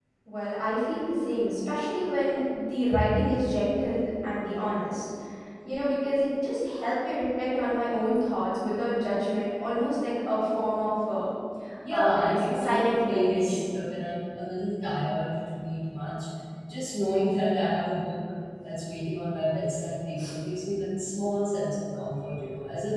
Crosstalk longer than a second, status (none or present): present